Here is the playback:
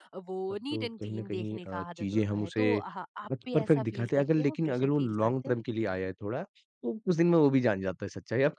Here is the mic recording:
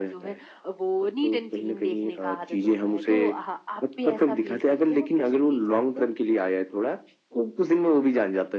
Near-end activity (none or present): none